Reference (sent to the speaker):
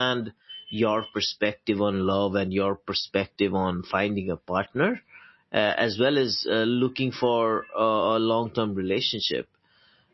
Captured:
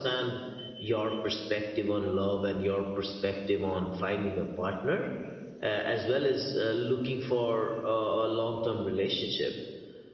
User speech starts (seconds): none

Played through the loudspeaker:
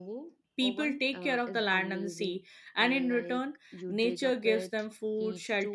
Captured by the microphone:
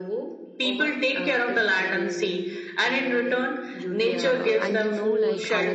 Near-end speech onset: 4.0 s

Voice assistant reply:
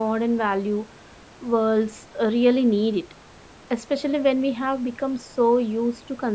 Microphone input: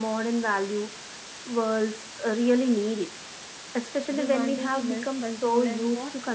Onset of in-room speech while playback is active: 4.2 s

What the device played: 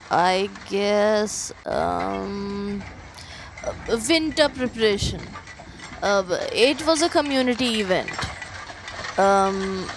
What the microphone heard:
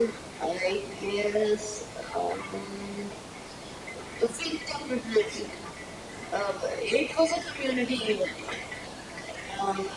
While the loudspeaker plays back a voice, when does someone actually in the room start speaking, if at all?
none

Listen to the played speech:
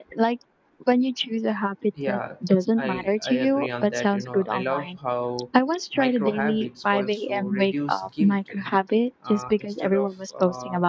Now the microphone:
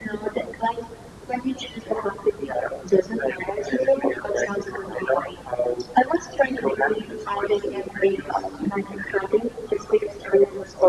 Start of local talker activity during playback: none

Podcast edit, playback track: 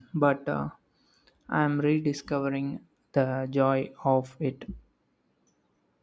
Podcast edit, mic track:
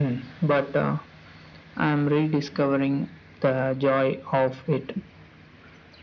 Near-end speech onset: none

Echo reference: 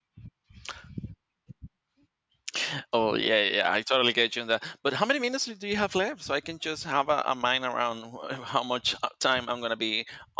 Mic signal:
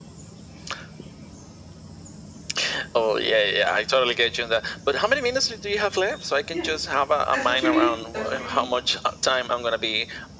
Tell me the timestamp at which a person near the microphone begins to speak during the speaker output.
6.5 s

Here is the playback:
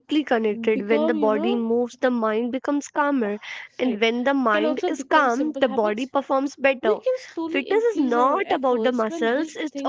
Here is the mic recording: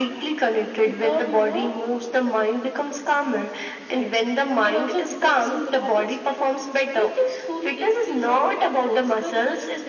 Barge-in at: none

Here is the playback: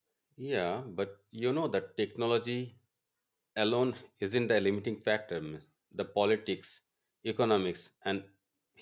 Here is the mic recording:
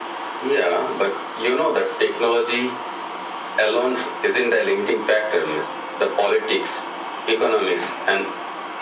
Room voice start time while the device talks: none

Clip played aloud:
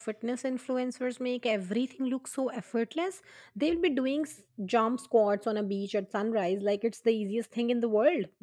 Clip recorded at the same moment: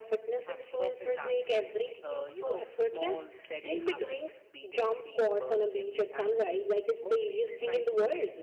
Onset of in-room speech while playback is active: 0.5 s

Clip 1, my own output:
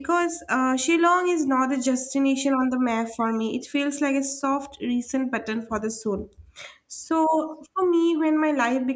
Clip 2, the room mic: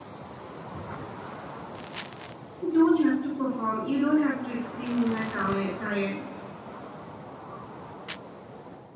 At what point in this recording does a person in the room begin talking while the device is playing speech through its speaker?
2.6 s

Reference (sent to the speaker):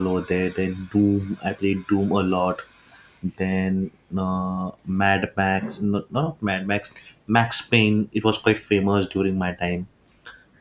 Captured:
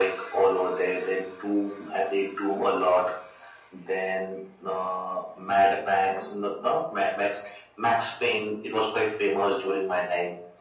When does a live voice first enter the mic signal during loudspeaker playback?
none

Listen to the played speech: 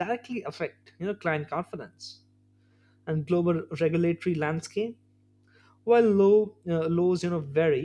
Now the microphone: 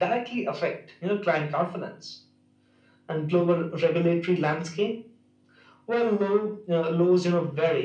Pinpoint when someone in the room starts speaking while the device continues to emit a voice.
none

